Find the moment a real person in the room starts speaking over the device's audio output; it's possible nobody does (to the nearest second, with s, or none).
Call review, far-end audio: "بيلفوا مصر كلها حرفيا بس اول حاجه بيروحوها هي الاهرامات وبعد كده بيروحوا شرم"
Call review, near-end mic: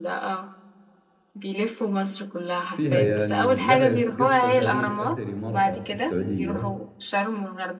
3 s